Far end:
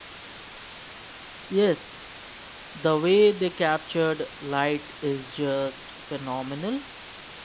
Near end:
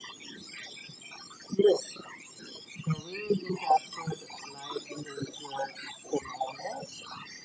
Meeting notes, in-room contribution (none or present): none